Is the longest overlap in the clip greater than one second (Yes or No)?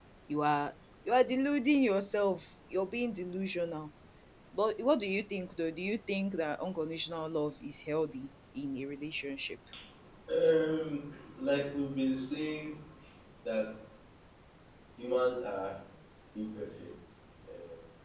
No